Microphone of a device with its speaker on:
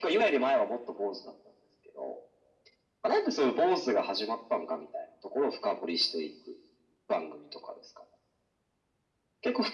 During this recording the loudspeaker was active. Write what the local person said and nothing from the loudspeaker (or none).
none